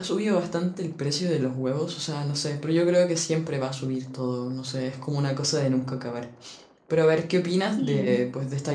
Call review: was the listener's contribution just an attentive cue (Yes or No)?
Yes